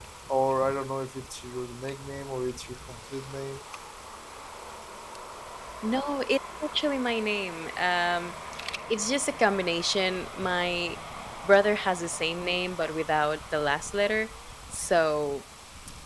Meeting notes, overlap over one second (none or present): none